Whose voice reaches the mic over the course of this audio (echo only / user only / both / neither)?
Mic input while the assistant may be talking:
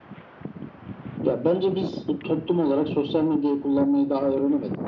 echo only